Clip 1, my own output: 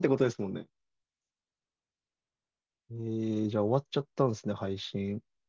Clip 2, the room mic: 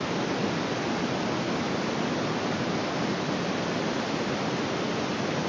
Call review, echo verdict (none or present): none